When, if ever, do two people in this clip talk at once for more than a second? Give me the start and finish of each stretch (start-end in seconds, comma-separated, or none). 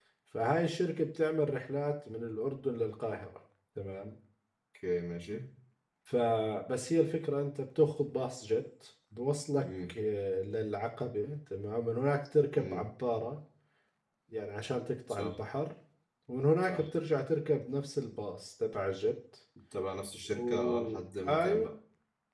20.4-21.7